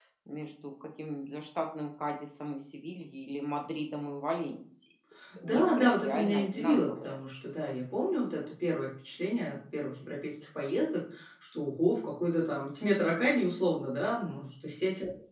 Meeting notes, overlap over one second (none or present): present